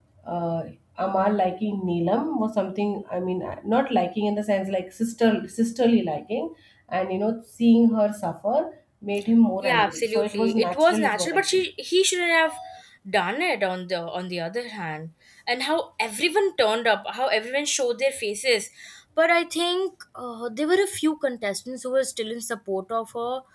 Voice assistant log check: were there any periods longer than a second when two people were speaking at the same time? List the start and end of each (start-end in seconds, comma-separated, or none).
9.6-11.6